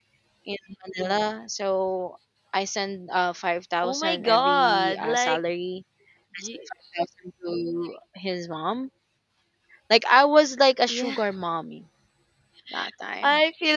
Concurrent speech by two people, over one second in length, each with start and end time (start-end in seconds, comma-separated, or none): 3.8-5.4